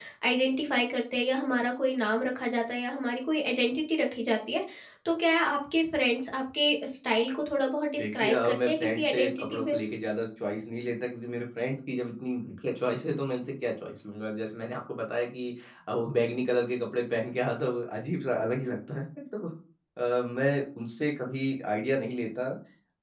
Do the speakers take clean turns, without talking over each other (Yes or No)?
No